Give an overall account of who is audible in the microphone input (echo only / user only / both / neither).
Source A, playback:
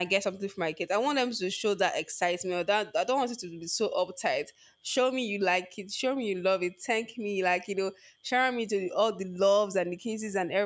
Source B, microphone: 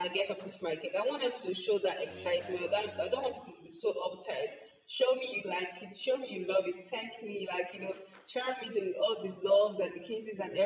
both